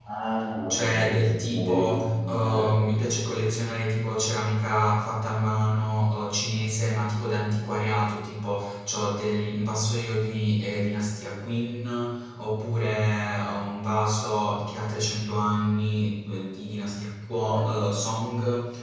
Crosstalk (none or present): present